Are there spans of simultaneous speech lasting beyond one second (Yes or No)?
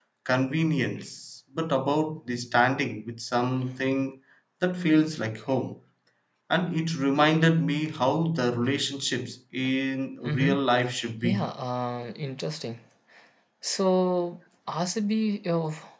No